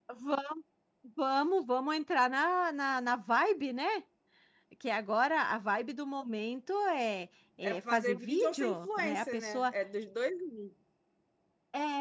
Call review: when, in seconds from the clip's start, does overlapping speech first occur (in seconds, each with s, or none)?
7.6 s